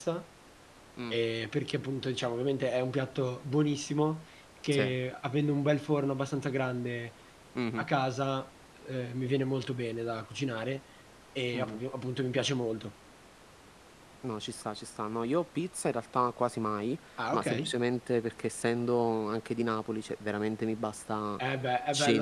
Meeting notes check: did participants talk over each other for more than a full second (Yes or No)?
No